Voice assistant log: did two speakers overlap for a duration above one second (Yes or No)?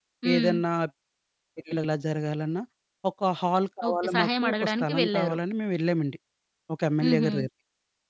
Yes